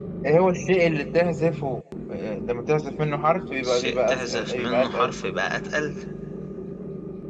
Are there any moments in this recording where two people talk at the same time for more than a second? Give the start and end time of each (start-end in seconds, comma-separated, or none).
3.6-5.1